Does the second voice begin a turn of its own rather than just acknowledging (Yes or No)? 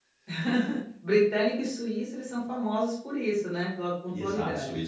Yes